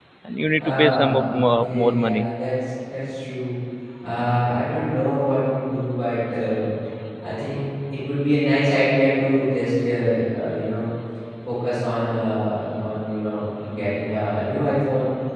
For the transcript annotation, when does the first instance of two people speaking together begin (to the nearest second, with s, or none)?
1 s